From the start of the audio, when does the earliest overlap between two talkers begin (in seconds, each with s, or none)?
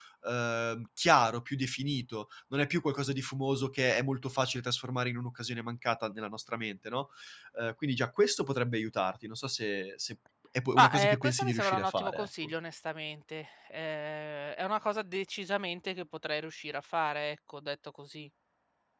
10.8 s